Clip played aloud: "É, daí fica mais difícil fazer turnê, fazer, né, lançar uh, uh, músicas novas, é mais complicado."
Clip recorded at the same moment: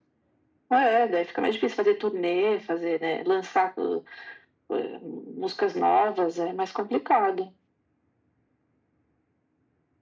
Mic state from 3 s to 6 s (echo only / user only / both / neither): echo only